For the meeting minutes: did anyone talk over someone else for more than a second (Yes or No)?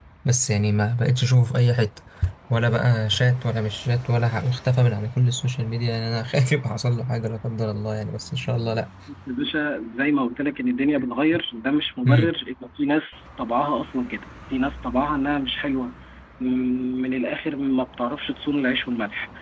No